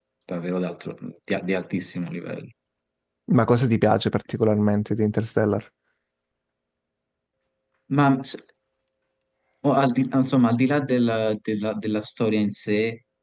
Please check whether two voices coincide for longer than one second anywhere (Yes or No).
No